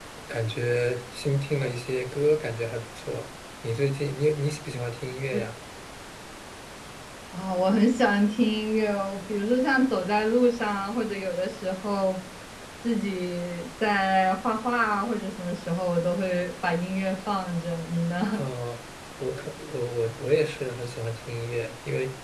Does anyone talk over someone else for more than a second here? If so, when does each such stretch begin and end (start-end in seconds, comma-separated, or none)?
none